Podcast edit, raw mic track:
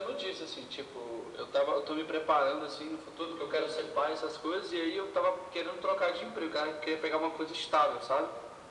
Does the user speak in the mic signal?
No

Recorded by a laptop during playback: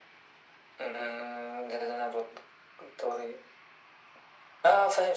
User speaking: No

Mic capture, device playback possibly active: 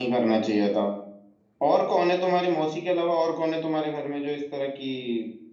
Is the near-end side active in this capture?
Yes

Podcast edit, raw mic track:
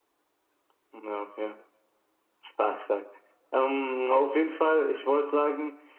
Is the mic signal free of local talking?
Yes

